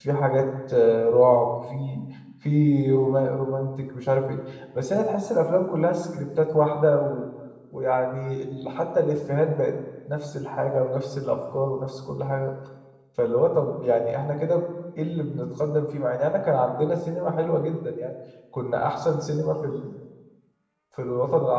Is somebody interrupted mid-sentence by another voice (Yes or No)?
No